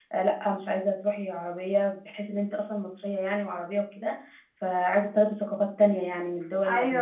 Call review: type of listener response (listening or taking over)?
taking over